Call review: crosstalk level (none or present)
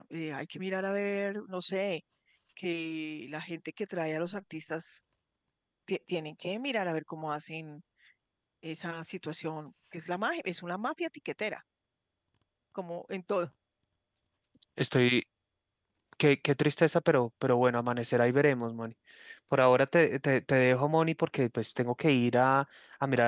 none